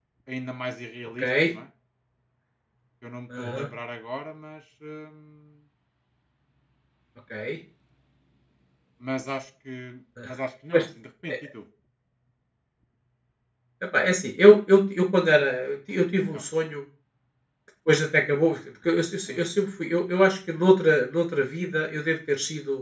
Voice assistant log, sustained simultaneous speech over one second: none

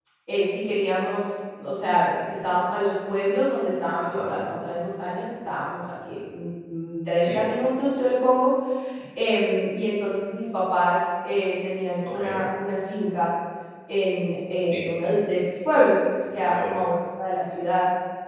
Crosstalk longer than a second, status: none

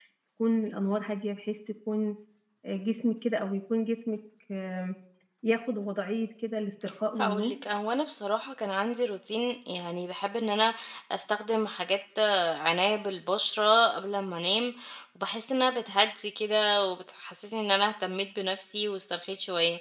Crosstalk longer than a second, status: none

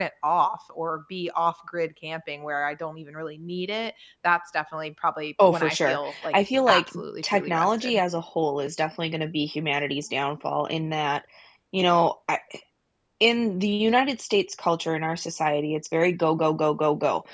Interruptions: present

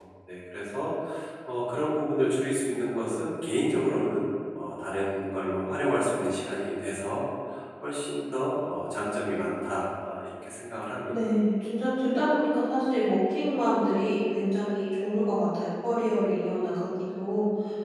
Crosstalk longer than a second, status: none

